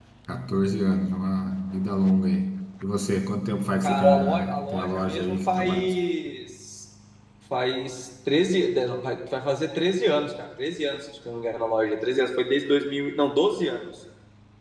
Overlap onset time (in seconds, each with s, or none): 3.8 s